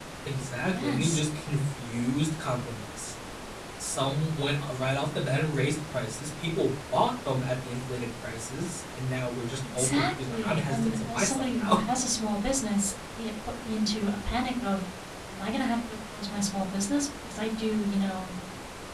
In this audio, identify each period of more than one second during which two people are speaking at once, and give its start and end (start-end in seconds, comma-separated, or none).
9.8-11.8